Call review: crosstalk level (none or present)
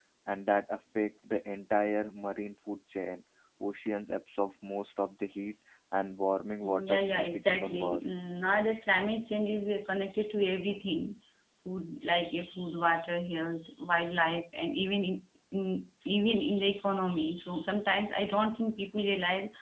present